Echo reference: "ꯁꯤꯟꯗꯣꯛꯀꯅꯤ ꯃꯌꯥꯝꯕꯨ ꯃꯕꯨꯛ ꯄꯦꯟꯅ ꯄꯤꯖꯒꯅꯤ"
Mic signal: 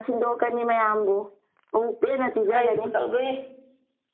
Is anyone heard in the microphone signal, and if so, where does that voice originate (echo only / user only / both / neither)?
both